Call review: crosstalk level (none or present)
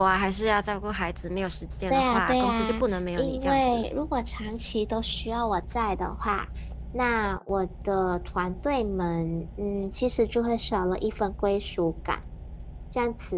present